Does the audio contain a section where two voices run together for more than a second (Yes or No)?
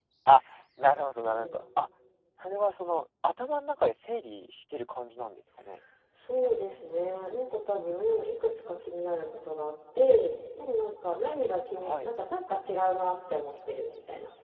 No